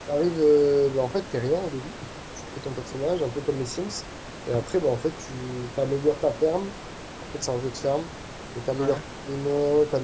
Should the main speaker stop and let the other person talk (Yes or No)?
No